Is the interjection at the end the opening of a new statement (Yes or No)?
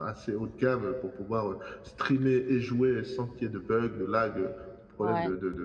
Yes